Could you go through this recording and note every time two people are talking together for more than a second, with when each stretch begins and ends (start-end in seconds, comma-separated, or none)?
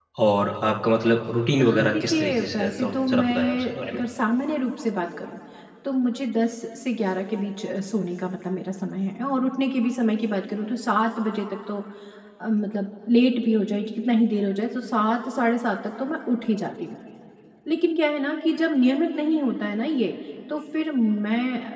1.6-4.0